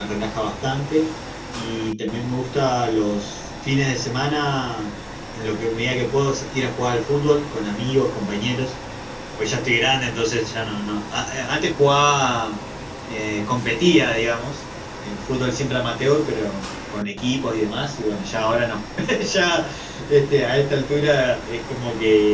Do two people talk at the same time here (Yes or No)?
No